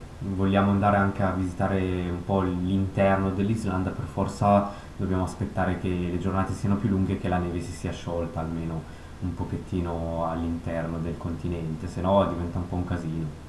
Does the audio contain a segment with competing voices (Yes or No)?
No